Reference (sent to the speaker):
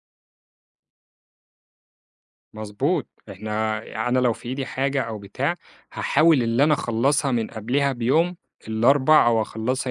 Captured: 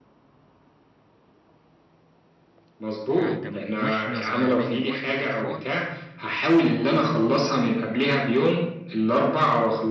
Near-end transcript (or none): فده من وإحنا صغيرين، من وإحنا أطفال،